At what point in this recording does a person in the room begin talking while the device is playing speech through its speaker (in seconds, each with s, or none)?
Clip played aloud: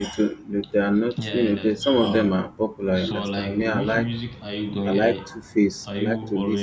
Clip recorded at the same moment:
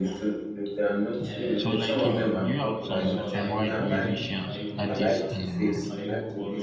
1.5 s